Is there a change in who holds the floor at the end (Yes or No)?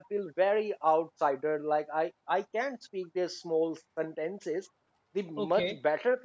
No